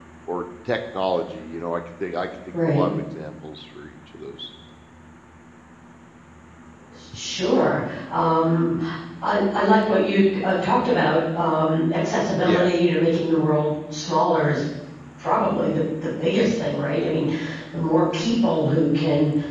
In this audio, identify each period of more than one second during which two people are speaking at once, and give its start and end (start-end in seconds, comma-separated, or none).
none